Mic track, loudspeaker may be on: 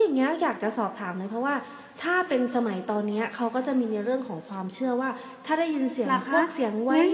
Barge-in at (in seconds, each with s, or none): 6.0 s